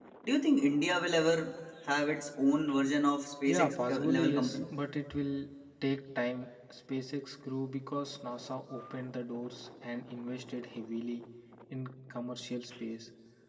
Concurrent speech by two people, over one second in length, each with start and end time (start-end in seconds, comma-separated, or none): 3.5-4.7